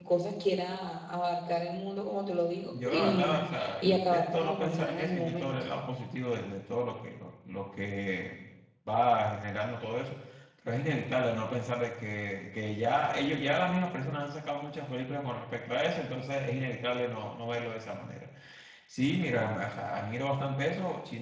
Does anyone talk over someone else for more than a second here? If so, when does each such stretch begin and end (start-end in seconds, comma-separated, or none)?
2.9-5.5